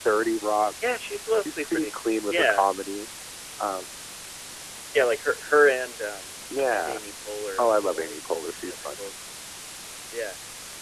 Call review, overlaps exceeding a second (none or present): present